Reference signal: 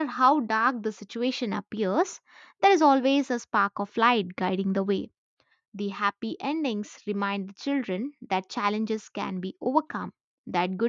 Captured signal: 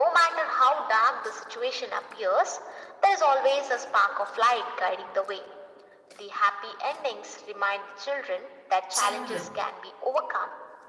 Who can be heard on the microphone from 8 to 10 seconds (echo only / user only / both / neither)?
both